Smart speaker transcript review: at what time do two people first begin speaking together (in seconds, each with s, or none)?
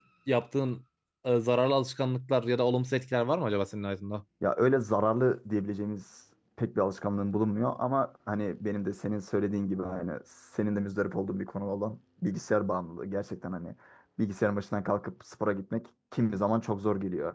none